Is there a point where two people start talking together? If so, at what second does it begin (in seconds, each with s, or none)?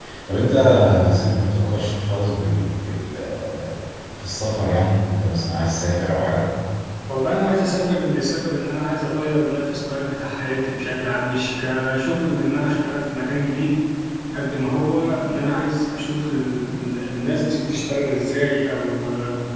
none